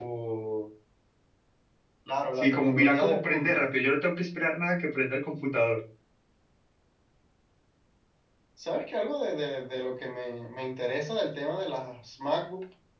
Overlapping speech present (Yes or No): Yes